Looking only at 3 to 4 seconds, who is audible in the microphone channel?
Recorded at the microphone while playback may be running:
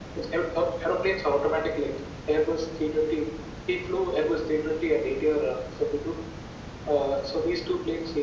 echo only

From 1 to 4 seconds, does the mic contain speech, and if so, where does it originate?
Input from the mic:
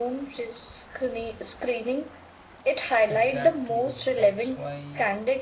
both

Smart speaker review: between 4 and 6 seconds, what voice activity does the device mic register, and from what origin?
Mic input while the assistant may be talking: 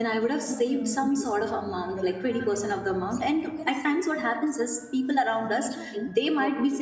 both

